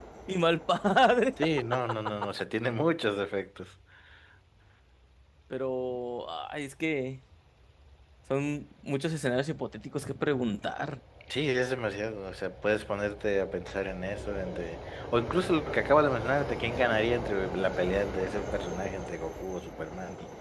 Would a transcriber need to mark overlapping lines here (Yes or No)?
No